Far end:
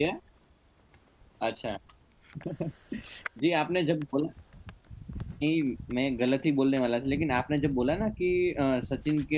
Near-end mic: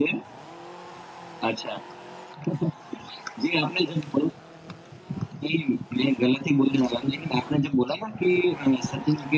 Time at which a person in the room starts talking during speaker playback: none

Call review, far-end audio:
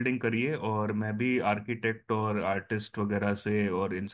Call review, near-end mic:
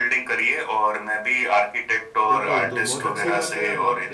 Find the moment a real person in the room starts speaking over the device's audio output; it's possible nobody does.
2 s

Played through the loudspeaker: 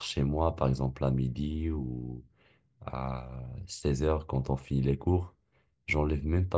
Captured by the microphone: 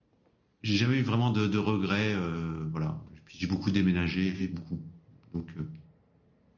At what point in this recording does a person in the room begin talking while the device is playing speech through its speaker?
1 s

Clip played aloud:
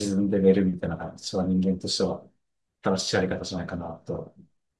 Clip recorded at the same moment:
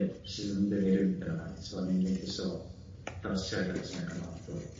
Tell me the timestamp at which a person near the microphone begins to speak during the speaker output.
none

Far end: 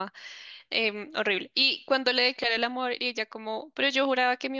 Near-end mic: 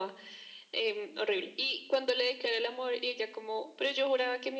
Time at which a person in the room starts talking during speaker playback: none

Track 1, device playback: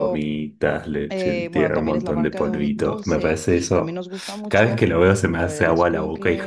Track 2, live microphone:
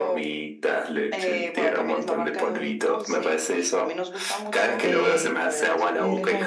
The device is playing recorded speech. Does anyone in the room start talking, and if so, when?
5 s

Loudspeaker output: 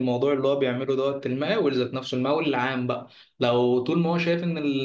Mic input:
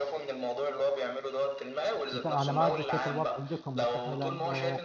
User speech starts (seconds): 2 s

